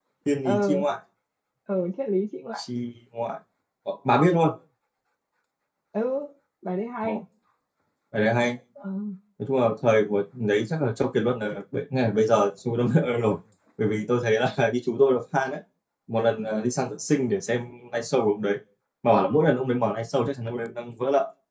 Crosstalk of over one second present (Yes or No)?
No